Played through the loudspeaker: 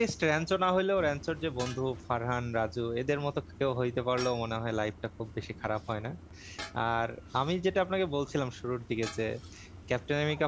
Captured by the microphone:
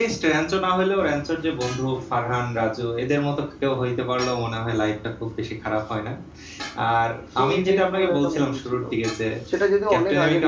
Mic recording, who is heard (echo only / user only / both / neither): both